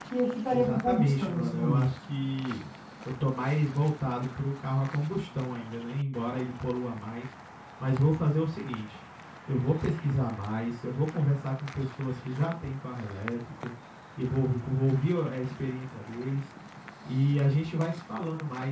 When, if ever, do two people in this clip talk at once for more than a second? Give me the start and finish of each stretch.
0.5-1.9

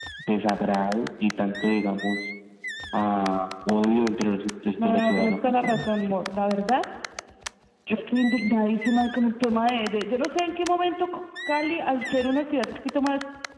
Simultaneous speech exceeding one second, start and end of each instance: 4.8-6.2

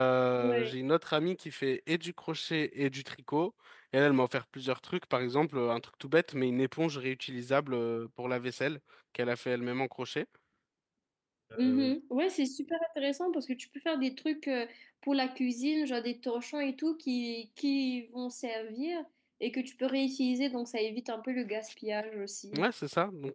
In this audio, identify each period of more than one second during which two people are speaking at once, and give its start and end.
none

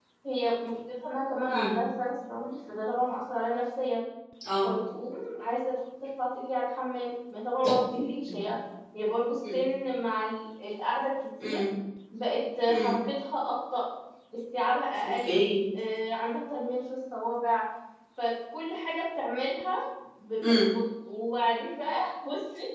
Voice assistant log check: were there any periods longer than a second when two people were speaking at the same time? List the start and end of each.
none

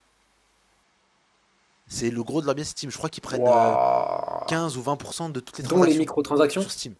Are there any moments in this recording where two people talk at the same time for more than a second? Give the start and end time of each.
none

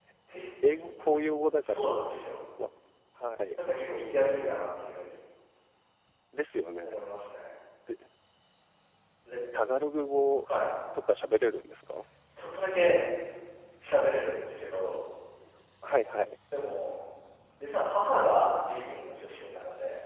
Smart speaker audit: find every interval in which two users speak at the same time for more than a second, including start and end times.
0.7-1.9

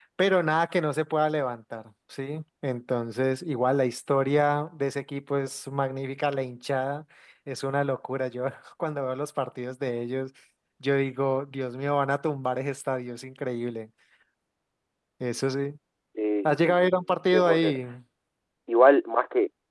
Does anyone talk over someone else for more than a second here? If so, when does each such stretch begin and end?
16.4-17.8

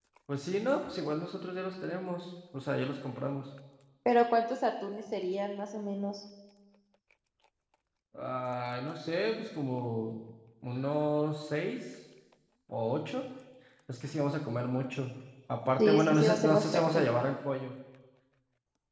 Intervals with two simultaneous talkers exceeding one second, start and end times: 15.8-17.0

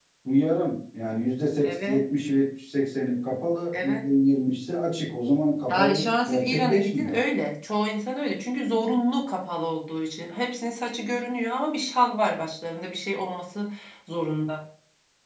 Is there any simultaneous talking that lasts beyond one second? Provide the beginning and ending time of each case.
5.7-7.2

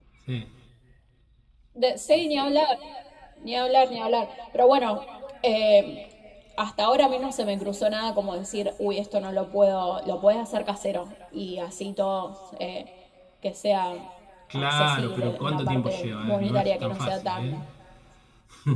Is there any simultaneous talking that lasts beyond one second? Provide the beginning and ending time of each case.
14.5-17.6

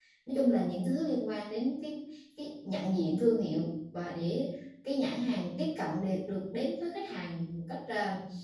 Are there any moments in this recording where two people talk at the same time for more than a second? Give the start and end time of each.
none

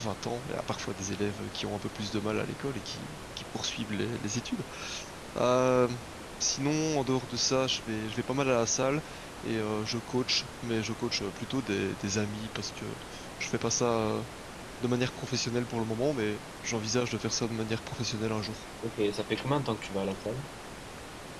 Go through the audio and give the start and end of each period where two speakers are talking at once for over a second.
none

